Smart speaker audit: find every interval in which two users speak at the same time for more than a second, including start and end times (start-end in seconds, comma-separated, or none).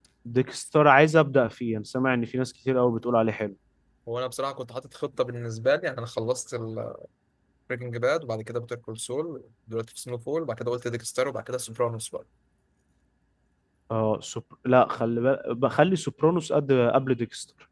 none